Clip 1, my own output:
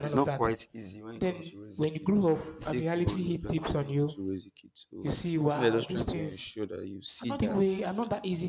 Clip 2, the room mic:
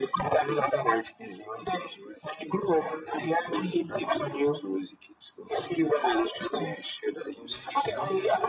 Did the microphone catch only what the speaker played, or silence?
No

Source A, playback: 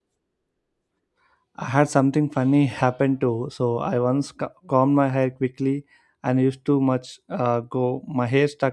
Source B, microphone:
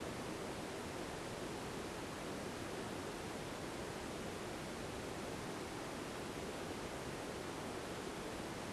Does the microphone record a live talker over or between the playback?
No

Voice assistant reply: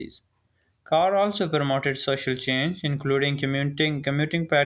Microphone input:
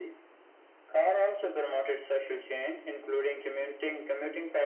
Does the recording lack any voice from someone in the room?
Yes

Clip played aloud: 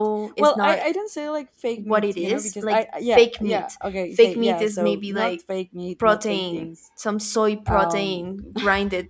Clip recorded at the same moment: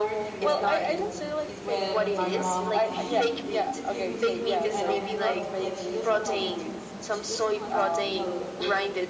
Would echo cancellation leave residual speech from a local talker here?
Yes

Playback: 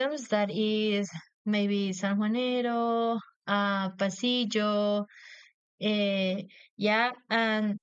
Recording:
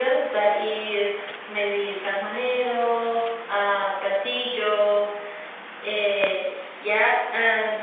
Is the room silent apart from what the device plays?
Yes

